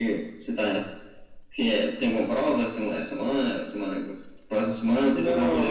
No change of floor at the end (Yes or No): No